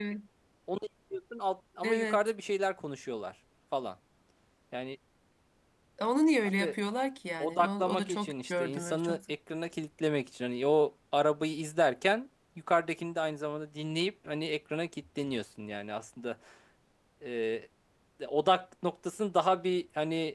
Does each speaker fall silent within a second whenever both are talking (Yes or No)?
No